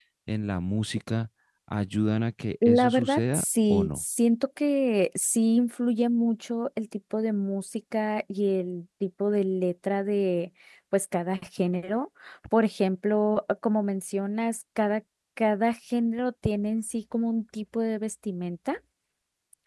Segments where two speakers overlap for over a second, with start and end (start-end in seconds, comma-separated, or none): 2.6-4.0